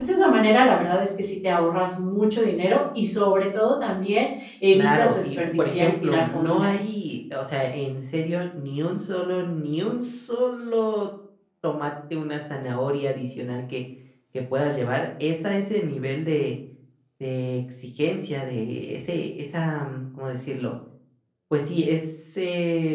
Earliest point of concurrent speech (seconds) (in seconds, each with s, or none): 4.7 s